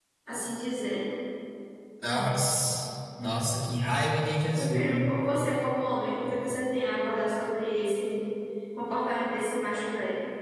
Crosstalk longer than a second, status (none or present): none